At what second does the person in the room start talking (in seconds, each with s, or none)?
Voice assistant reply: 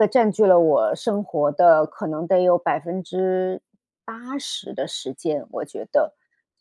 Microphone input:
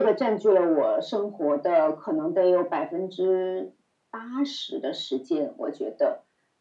none